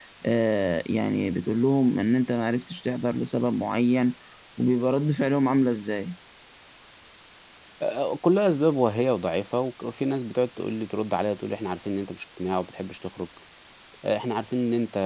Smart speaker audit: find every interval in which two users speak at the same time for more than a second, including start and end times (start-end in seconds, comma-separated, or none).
none